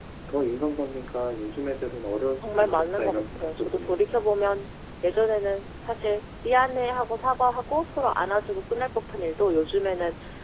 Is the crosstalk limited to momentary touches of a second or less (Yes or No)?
No